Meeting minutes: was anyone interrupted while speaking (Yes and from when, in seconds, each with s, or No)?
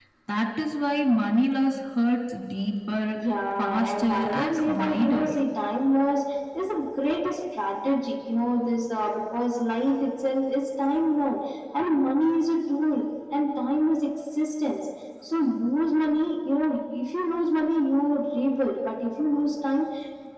Yes, from 3.6 s